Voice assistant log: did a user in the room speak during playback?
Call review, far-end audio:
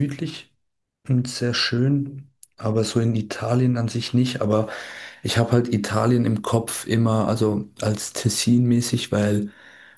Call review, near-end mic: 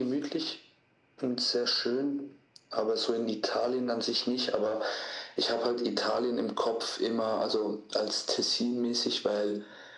No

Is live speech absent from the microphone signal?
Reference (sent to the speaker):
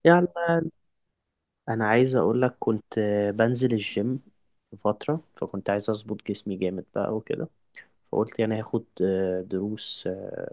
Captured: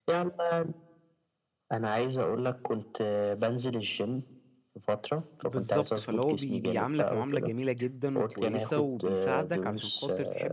No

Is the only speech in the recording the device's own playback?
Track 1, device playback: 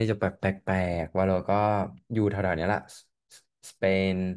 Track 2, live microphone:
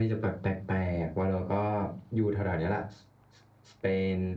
Yes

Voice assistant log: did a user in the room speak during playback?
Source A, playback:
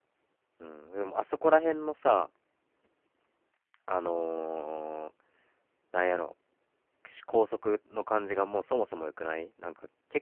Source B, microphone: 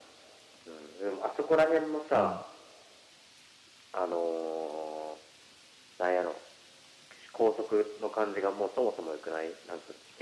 Yes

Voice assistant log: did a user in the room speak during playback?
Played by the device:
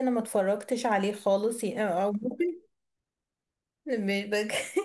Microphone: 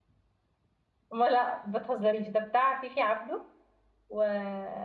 Yes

